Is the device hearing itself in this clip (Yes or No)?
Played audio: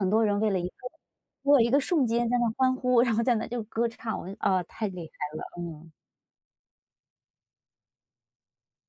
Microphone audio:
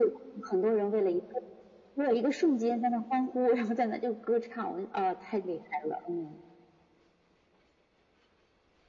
Yes